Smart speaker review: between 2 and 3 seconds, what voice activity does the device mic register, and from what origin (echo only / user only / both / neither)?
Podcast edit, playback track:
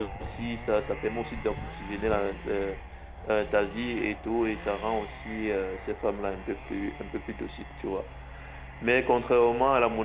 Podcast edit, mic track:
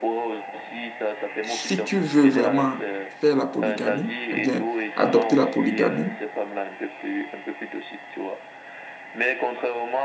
both